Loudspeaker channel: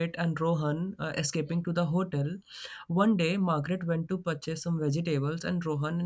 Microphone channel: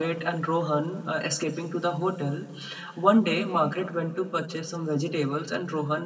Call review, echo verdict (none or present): present